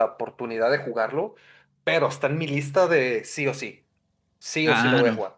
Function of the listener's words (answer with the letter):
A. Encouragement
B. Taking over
B